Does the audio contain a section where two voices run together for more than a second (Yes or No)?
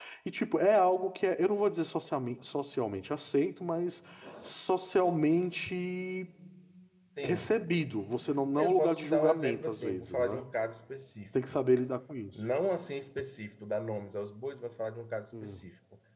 Yes